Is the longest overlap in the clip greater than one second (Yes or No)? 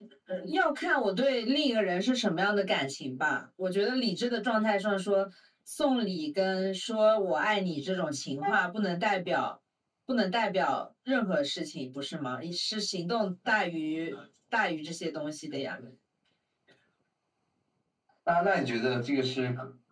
No